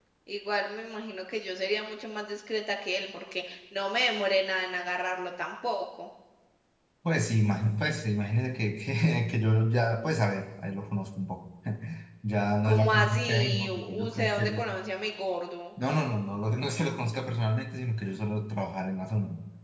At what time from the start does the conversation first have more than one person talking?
13 s

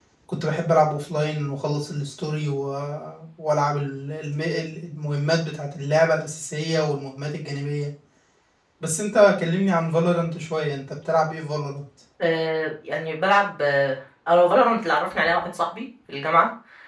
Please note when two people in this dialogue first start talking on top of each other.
none

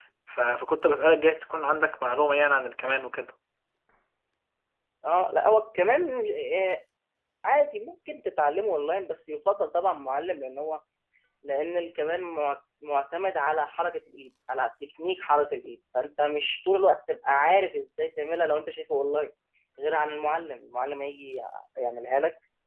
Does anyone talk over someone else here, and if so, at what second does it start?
none

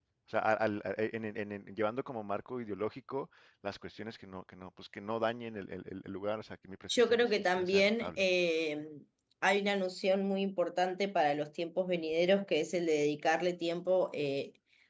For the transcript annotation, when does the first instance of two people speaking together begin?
7 s

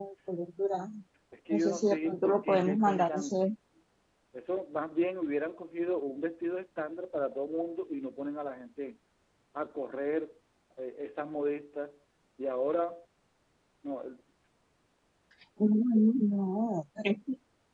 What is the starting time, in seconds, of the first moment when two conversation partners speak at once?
2 s

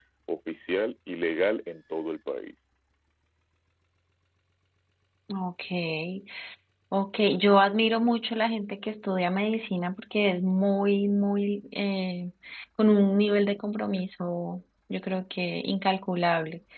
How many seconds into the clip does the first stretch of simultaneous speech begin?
none

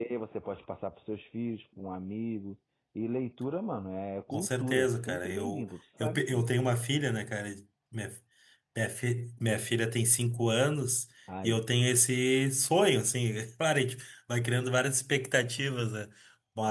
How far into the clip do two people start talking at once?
4 s

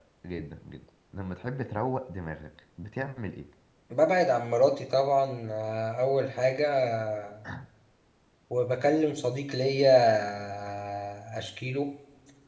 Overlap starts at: none

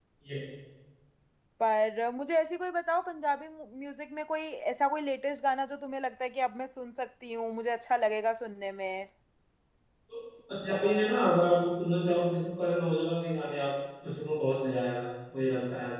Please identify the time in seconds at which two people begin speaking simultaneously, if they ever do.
none

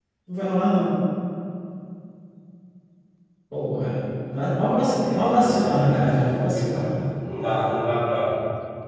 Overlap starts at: 5 s

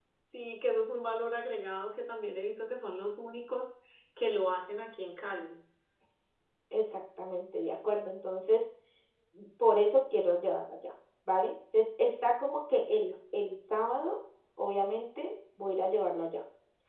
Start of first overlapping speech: none

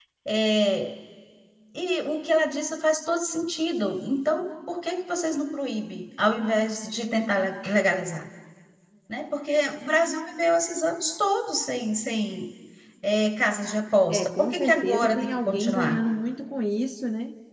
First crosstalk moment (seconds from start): 14 s

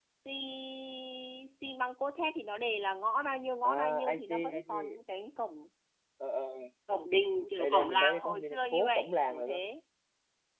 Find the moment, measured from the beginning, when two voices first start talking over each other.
4 s

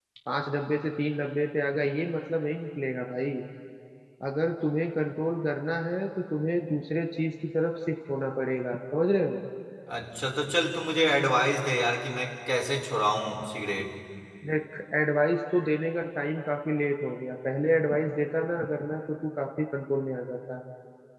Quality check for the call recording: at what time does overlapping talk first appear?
none

